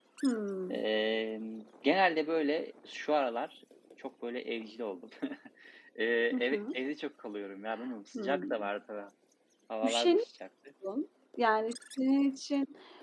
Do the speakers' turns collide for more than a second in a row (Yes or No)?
No